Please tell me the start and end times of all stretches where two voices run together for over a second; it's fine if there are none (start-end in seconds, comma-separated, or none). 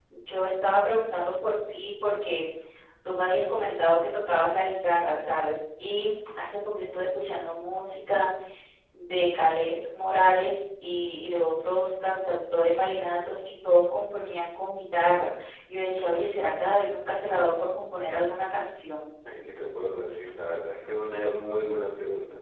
none